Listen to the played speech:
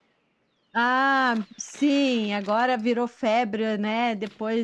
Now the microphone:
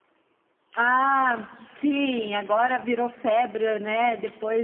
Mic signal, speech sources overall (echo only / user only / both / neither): echo only